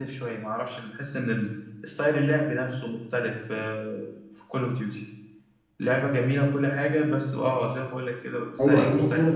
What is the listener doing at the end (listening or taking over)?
taking over